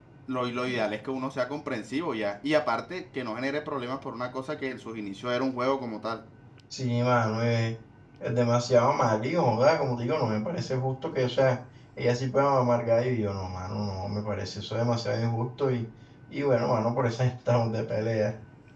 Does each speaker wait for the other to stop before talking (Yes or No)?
Yes